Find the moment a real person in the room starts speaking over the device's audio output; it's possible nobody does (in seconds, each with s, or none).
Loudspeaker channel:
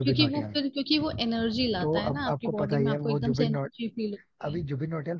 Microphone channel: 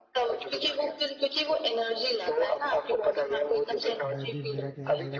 4.1 s